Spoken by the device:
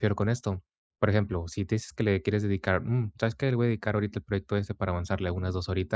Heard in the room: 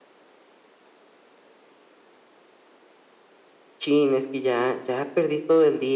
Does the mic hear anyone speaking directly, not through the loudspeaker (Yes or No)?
Yes